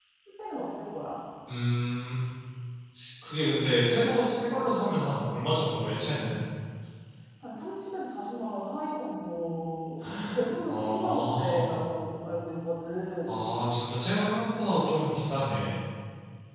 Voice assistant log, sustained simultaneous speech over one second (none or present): present